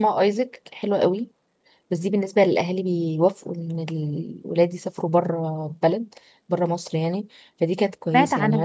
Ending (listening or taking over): listening